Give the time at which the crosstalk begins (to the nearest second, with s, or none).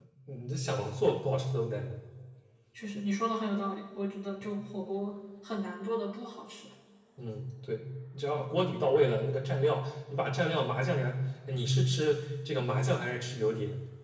none